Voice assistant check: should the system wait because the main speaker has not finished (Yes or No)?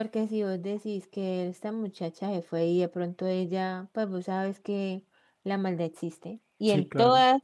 Yes